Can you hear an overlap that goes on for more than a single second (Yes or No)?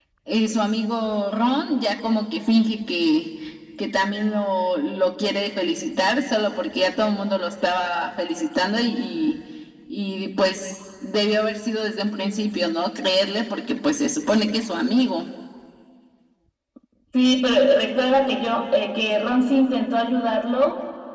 No